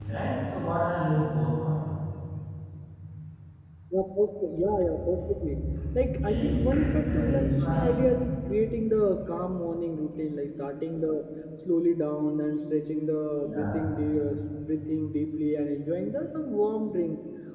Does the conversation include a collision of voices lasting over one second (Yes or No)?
Yes